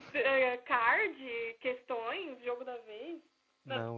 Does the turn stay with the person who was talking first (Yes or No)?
No